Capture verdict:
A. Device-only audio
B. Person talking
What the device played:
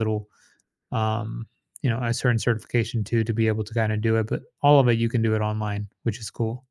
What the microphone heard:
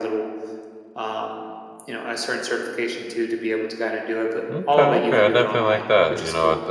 B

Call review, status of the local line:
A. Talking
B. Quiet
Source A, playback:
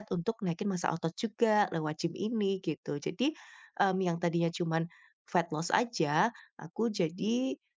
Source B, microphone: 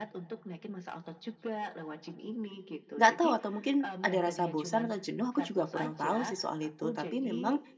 A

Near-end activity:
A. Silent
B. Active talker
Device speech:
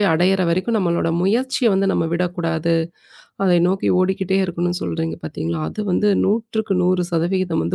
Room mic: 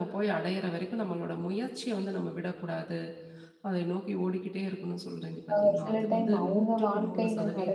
B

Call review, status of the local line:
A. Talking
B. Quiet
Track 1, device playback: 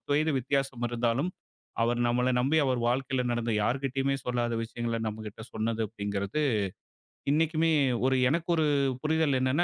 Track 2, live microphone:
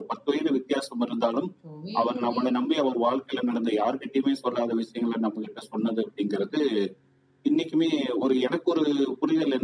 A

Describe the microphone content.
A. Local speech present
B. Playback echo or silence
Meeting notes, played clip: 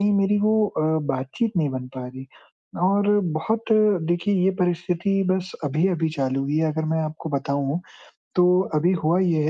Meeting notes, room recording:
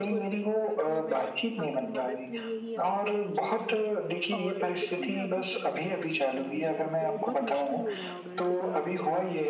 A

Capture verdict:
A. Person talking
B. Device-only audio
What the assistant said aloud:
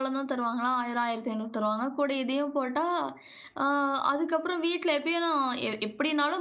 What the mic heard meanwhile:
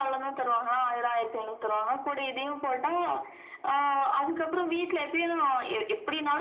B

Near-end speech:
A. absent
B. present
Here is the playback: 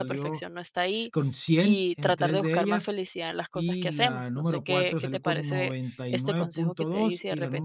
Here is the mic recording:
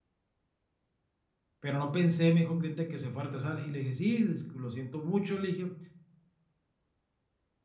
B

